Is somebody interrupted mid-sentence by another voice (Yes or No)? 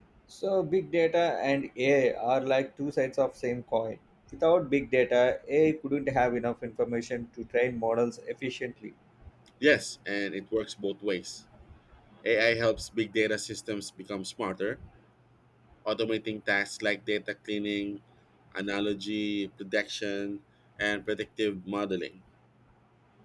No